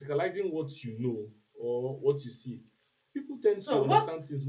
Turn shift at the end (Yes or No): No